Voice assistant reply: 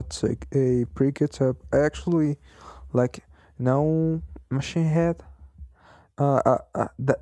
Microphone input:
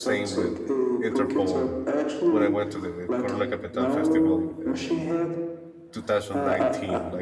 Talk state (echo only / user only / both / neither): both